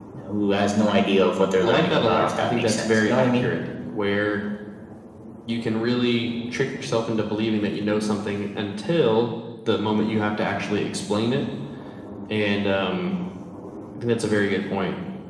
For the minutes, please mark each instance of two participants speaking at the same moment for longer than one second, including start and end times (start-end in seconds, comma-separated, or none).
1.6-3.5